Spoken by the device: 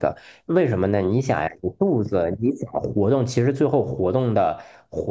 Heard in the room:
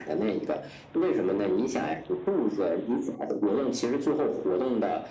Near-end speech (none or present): none